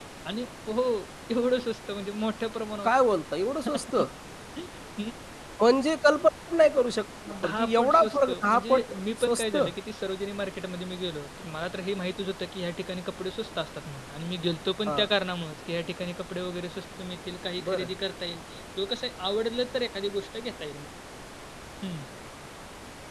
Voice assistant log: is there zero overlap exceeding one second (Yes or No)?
No